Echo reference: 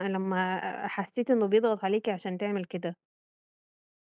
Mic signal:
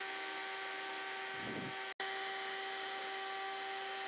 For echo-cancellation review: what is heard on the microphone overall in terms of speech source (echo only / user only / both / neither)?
neither